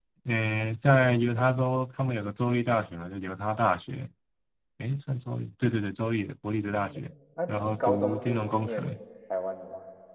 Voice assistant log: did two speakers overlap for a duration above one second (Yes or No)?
Yes